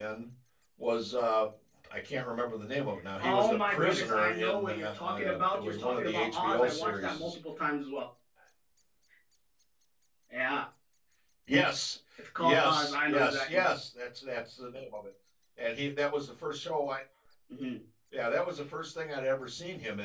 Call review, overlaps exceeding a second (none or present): present